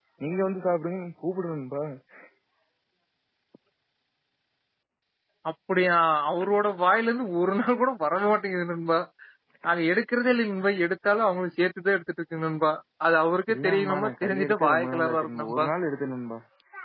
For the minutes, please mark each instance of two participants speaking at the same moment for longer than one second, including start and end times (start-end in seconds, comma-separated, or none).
13.5-15.7